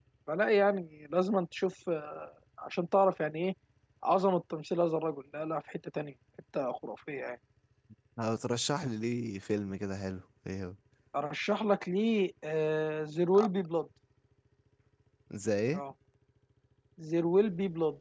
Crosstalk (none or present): none